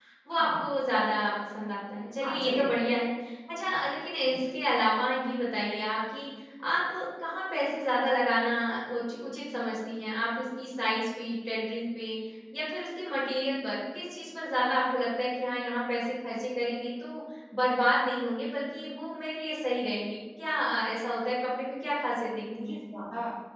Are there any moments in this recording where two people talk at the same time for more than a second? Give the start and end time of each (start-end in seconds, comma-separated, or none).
none